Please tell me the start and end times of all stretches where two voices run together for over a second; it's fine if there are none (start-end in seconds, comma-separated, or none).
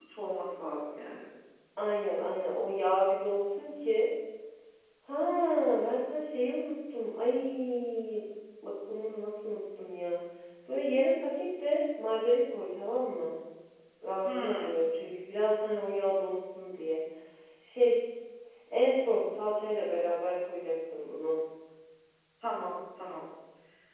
none